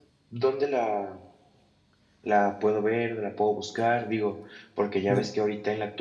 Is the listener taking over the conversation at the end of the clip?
No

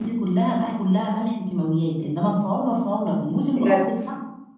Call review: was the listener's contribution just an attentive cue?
Yes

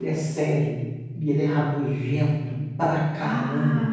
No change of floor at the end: Yes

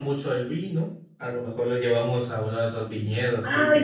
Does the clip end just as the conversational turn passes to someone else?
Yes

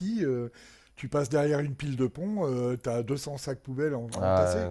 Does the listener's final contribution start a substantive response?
Yes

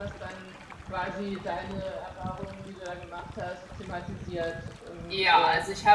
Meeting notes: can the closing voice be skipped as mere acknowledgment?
No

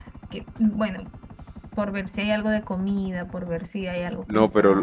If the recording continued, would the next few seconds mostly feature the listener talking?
Yes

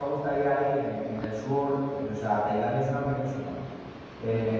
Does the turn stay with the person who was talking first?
Yes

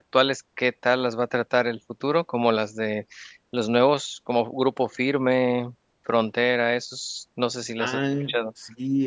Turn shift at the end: Yes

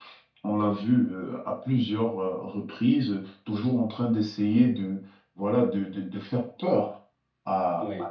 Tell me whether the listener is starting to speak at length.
No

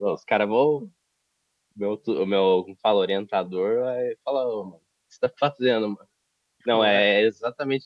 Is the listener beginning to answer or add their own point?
No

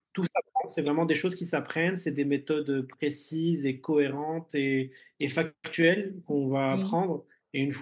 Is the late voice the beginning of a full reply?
No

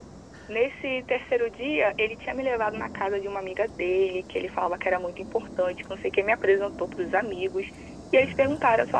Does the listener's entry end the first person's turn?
No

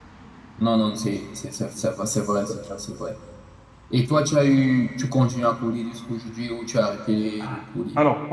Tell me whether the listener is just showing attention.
No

